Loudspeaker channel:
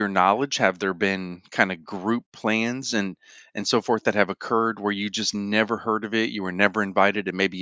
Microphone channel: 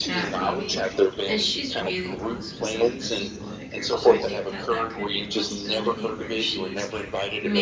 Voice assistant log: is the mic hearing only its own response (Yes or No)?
No